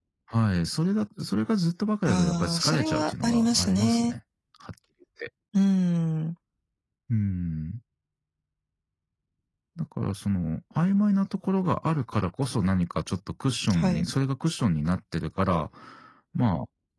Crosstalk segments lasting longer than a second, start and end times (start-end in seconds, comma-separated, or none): 2.1-4.1